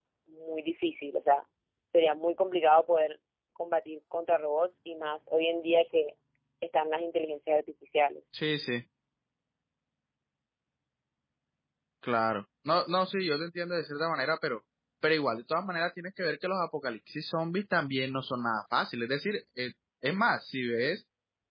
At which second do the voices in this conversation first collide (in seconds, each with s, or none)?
none